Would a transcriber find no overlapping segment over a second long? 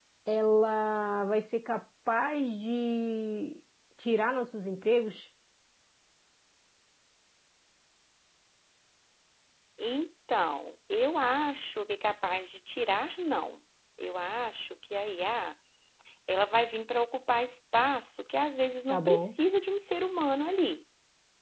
Yes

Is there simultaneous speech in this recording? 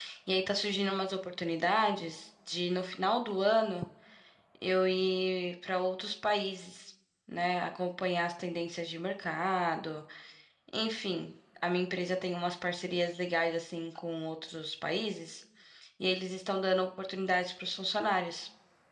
No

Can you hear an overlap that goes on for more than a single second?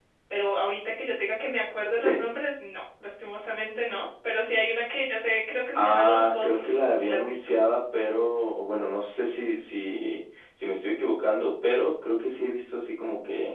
Yes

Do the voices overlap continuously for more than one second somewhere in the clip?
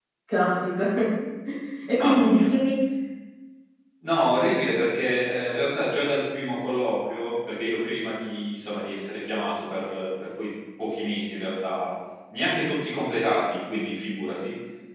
No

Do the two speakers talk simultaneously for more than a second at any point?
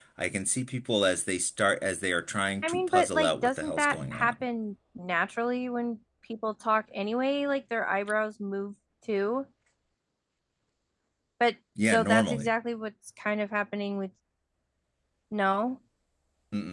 Yes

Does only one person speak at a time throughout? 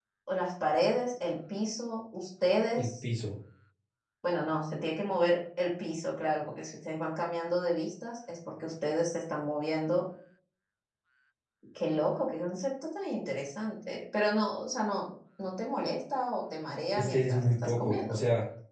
No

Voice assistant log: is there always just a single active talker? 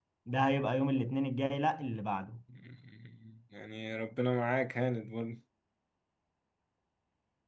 Yes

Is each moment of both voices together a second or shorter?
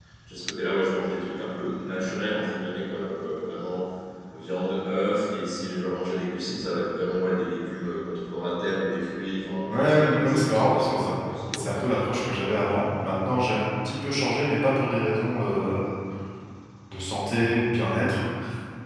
No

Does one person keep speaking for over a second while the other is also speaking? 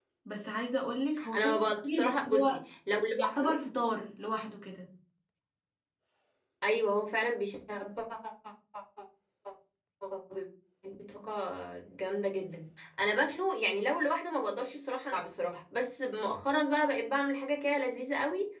Yes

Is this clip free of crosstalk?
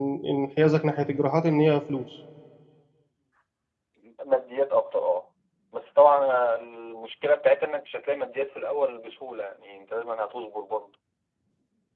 Yes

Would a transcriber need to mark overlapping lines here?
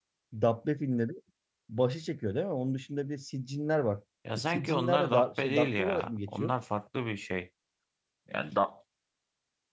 Yes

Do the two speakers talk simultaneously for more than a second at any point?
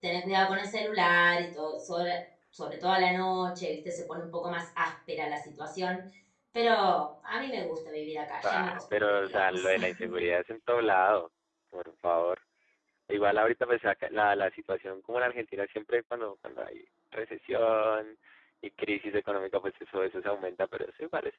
Yes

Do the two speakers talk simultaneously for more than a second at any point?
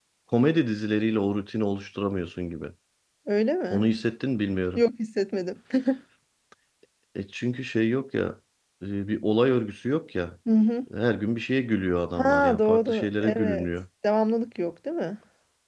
Yes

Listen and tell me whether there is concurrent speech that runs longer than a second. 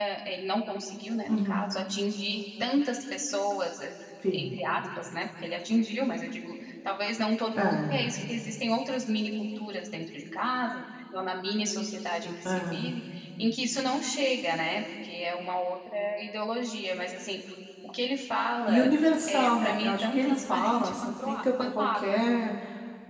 Yes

